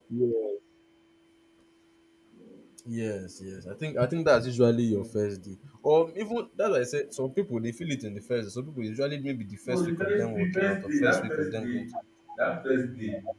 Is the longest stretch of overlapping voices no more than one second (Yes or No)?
No